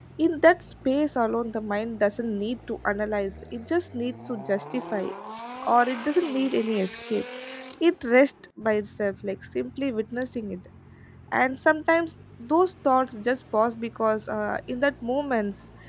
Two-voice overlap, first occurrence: none

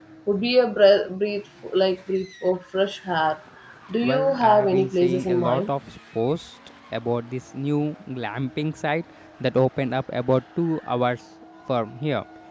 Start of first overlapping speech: 4.0 s

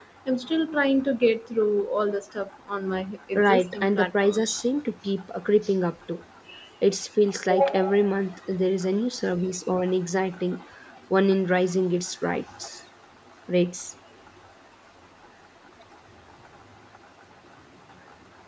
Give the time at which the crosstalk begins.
3.3 s

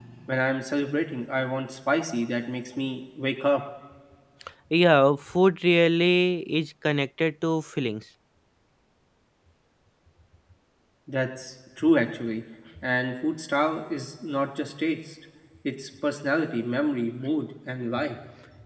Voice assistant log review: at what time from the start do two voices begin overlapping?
none

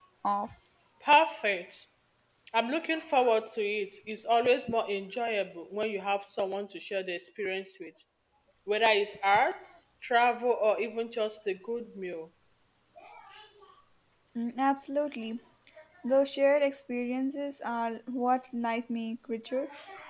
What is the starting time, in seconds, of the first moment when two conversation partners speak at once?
none

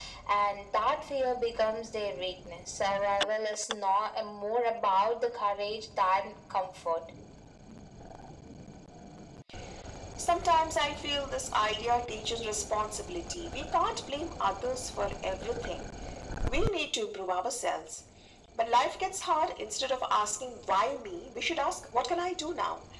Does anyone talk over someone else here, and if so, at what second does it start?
none

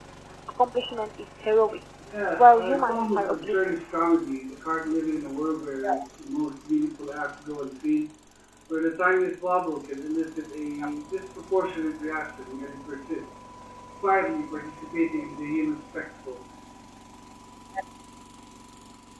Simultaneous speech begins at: 2.4 s

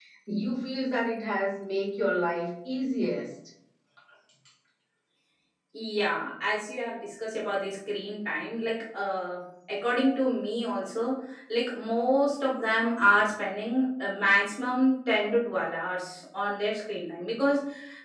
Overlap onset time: none

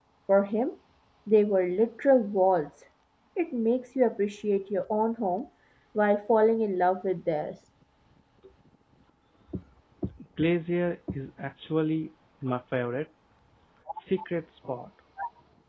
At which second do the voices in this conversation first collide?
none

